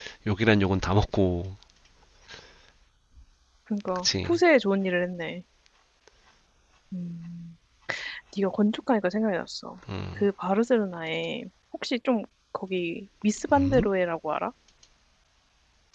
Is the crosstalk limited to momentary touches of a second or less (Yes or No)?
Yes